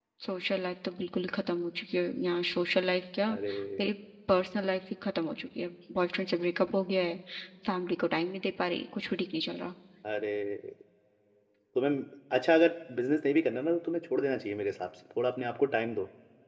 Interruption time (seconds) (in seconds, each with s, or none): none